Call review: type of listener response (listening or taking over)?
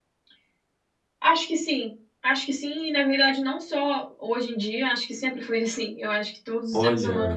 listening